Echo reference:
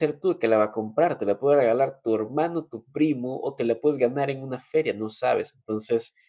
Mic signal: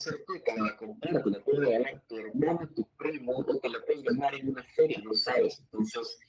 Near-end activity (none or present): none